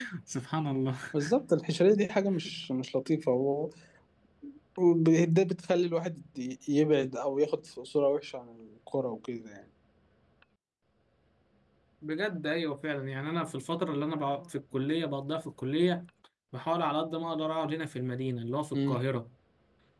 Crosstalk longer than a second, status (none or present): none